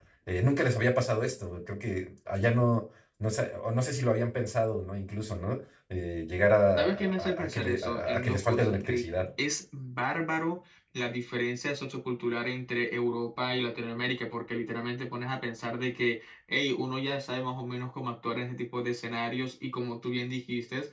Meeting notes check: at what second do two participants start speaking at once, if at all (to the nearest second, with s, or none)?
7 s